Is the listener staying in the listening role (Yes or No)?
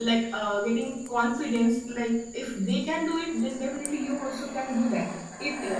Yes